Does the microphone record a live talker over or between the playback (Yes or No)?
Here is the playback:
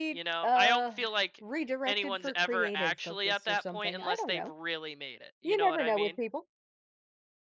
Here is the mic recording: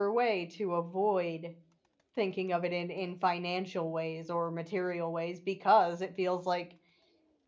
Yes